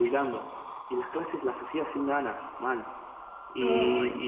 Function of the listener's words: listening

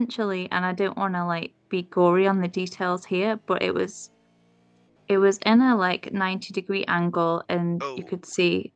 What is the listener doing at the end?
listening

